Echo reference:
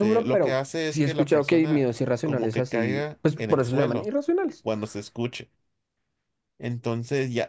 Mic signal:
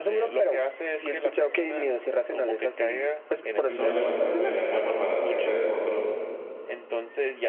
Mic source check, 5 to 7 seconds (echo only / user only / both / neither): both